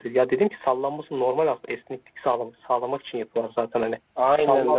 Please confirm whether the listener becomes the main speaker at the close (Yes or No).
Yes